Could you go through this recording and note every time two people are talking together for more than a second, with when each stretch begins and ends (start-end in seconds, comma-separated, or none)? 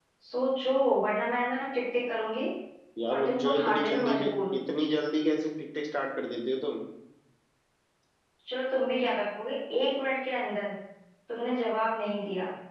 3.1-4.6